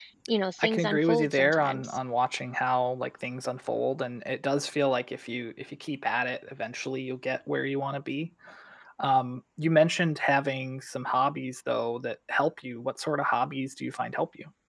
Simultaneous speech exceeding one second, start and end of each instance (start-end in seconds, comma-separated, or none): 0.6-2.0